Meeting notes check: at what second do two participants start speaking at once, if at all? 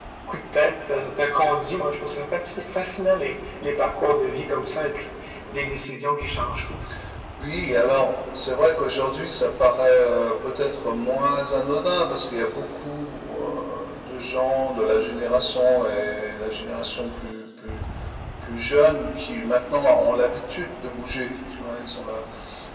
none

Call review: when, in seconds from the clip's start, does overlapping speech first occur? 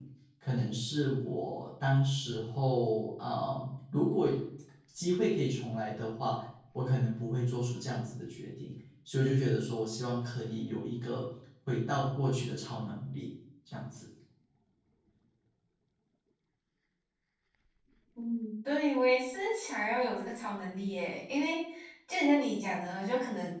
none

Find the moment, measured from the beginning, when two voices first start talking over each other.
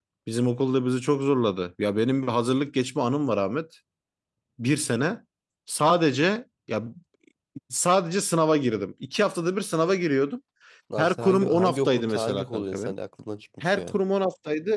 11 s

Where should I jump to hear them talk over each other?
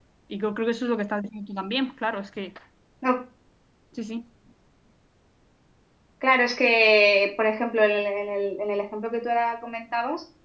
none

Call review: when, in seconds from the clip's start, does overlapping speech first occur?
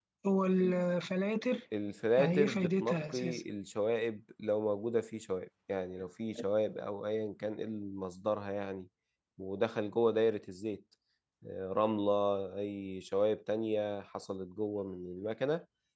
2 s

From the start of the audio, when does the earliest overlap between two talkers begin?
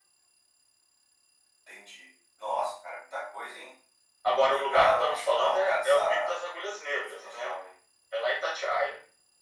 4 s

